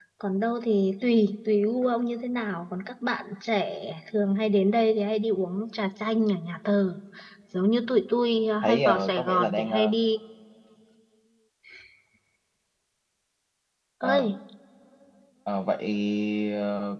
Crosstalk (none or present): present